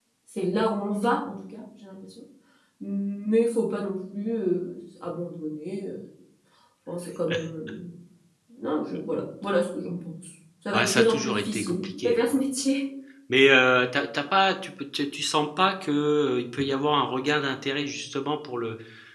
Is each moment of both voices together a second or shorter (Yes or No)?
No